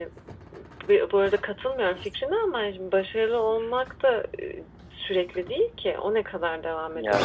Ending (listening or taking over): listening